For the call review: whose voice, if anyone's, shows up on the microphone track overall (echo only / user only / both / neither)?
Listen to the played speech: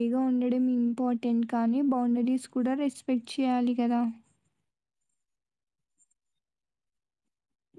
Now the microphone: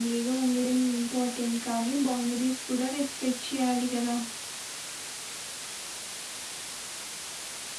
echo only